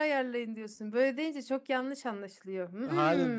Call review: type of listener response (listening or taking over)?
taking over